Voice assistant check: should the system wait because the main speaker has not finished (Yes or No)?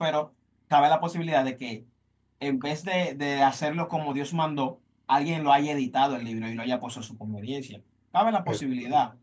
Yes